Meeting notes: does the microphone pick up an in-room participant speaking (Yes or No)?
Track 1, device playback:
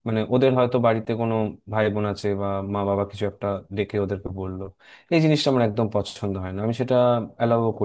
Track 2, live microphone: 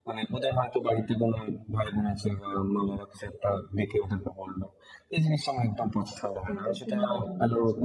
Yes